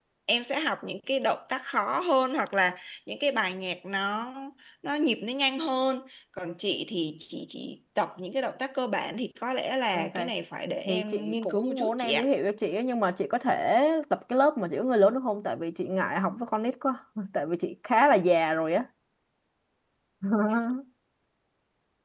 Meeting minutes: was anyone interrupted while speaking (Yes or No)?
Yes